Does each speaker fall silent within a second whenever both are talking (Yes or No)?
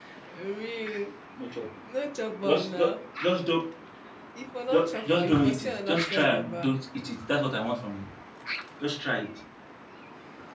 No